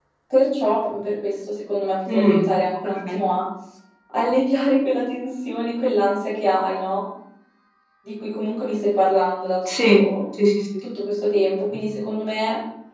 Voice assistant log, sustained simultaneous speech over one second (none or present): none